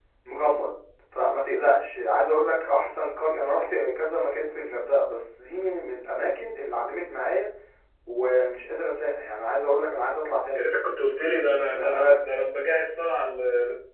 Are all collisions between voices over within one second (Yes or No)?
Yes